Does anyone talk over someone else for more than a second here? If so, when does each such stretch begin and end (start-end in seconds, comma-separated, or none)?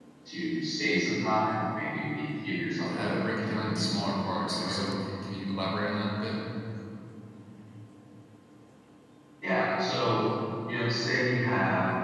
2.8-4.8